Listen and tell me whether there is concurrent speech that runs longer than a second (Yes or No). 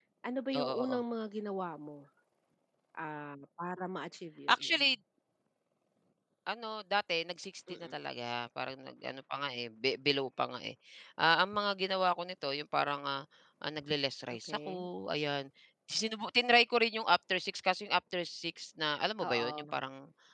No